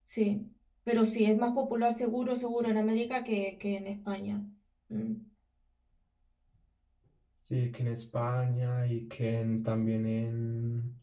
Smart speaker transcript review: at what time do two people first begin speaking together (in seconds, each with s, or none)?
none